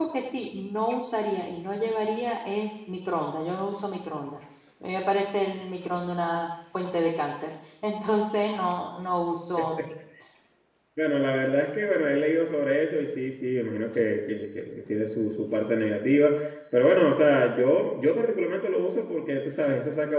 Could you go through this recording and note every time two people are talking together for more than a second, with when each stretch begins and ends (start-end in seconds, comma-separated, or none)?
none